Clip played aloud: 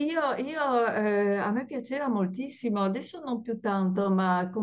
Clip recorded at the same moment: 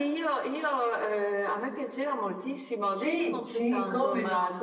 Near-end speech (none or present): present